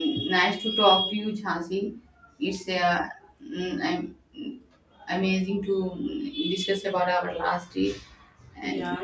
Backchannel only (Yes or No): No